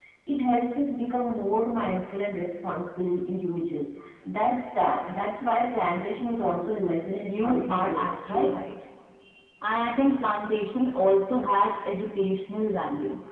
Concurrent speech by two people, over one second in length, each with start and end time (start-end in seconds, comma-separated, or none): 7.2-8.5